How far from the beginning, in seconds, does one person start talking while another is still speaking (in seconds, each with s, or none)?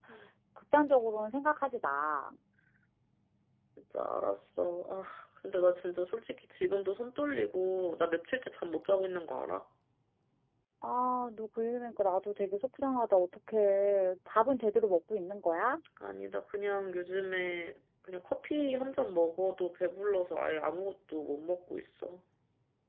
none